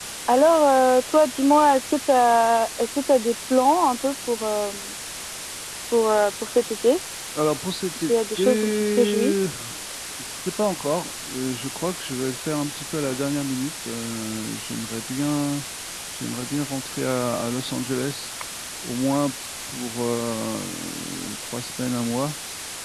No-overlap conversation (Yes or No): No